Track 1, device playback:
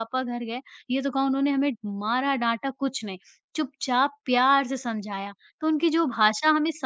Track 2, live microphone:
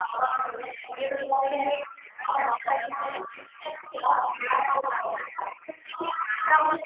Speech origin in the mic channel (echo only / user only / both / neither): echo only